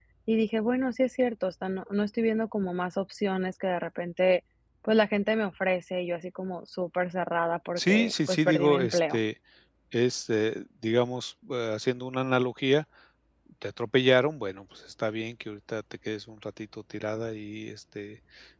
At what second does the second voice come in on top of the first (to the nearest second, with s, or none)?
8 s